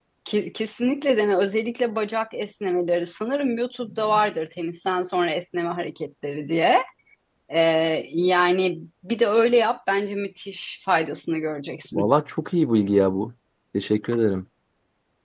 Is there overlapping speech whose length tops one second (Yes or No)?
No